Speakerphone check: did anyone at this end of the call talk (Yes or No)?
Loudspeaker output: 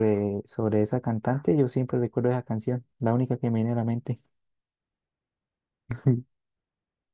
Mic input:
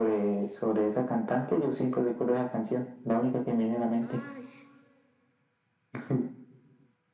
Yes